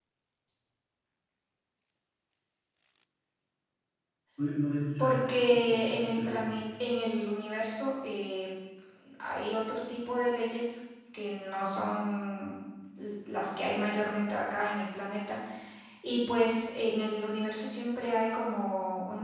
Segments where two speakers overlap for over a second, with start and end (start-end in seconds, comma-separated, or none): 5.0-6.6